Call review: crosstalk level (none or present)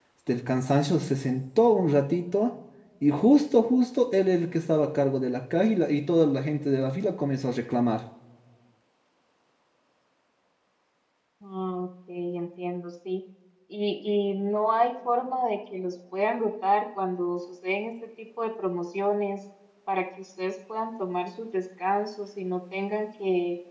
none